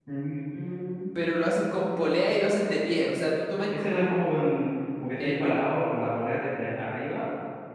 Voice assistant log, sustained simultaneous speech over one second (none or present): none